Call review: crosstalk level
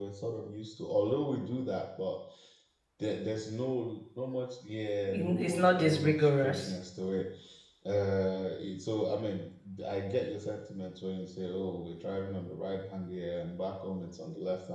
present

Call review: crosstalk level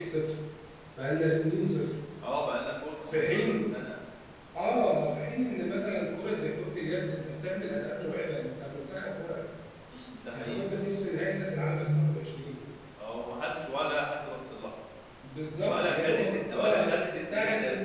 present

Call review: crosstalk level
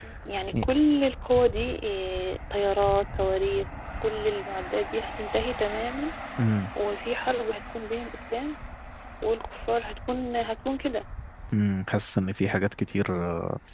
none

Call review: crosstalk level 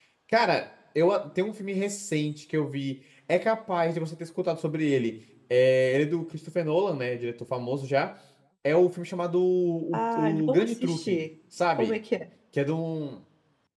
present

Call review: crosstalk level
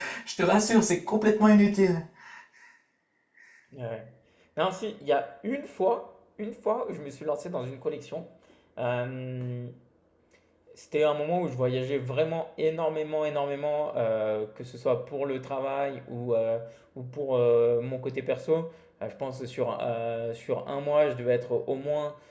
none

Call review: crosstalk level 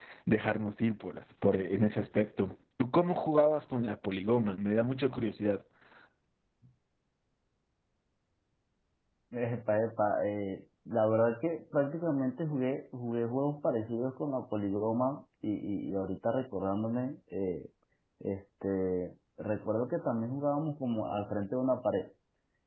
none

